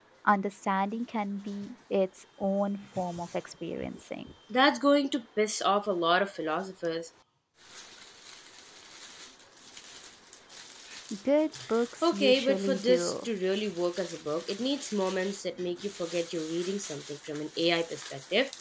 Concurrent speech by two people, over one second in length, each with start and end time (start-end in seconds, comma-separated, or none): 12.0-13.3